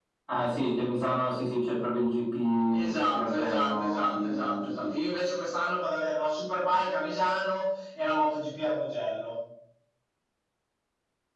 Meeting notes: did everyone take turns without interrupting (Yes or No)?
No